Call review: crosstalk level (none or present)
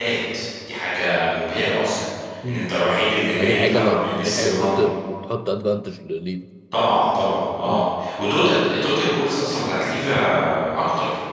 present